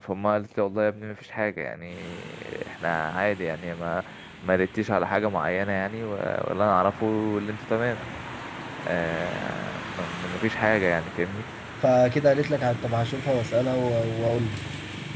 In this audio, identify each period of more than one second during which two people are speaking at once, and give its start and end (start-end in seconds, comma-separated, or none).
none